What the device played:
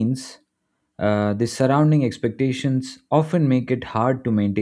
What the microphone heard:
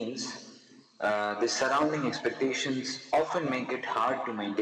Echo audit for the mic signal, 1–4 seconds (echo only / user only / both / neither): echo only